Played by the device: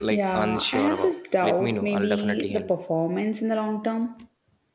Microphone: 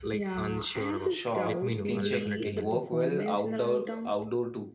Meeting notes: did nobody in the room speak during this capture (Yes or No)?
No